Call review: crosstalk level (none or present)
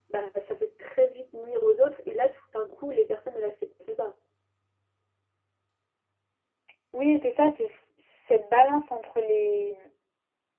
none